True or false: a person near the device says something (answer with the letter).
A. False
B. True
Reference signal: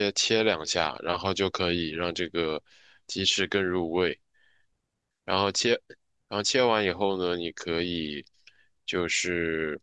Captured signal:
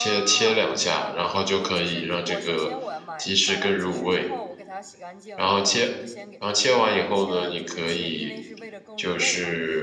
B